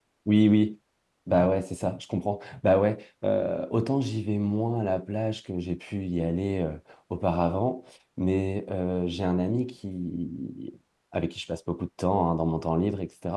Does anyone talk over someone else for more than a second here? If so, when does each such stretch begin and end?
none

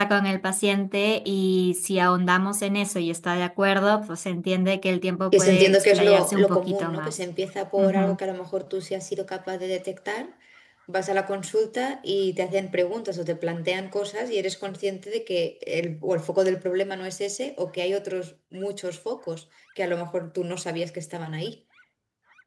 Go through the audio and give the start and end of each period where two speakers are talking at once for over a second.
5.3-7.2

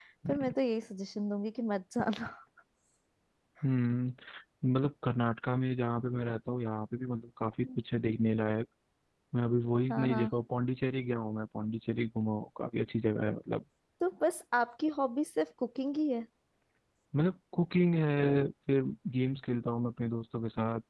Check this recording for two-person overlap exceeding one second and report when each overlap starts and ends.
none

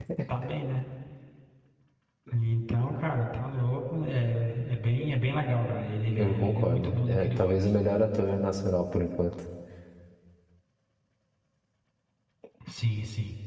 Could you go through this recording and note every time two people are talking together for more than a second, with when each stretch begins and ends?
6.2-7.7

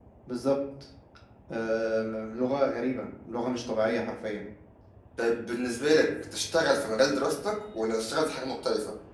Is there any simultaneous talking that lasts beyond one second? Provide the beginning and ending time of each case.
none

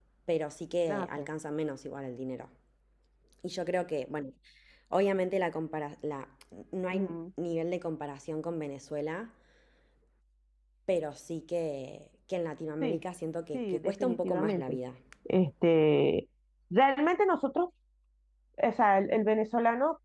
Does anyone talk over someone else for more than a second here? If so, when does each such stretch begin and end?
13.5-14.8

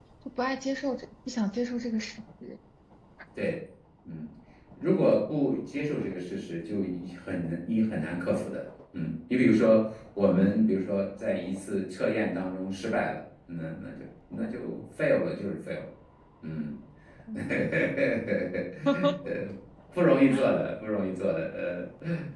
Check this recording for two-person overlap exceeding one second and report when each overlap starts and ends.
none

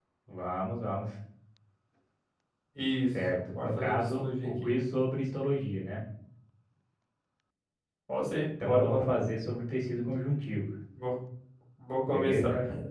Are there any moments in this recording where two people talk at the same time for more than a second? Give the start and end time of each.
3.3-4.7

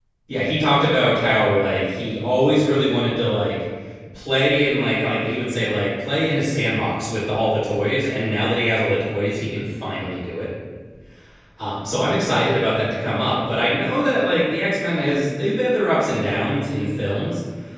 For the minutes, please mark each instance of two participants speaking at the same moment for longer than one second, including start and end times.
none

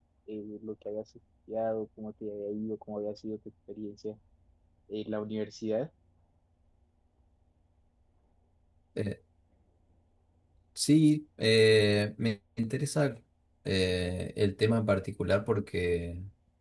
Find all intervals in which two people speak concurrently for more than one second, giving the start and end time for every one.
none

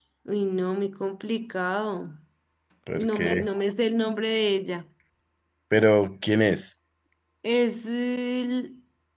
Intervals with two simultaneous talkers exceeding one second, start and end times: none

